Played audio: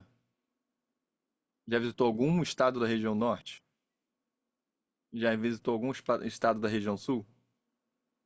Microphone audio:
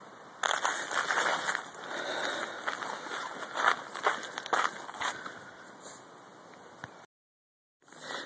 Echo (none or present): none